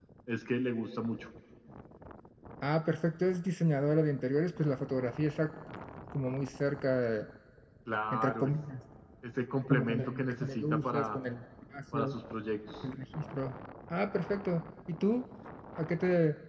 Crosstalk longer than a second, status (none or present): present